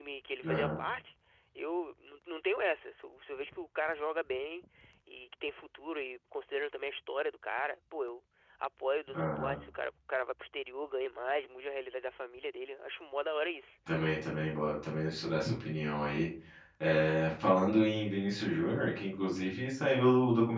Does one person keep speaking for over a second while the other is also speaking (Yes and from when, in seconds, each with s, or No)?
No